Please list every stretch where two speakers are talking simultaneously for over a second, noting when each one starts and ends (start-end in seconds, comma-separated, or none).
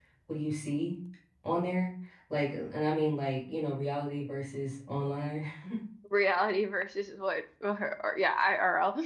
none